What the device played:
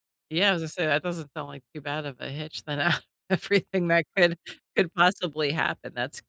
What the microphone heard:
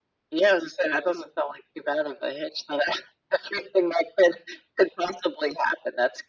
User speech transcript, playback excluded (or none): none